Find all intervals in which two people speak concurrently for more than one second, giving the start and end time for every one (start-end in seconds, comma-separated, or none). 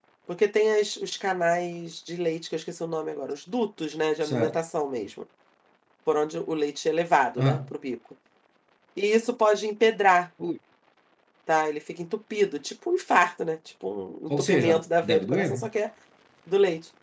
14.3-15.7